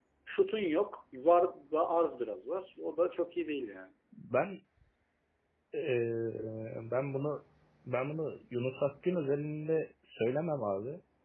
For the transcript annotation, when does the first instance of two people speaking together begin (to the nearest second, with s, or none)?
none